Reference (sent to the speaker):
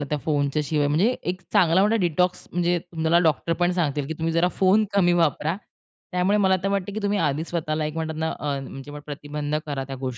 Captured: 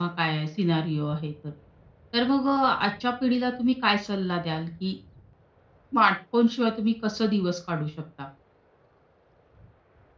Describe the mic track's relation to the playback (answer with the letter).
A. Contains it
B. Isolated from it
B